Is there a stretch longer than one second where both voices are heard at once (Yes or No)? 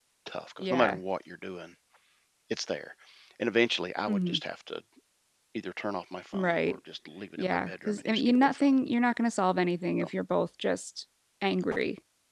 Yes